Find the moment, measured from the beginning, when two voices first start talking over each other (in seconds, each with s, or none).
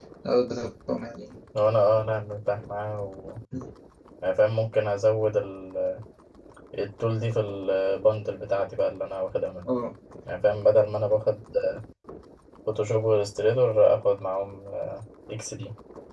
none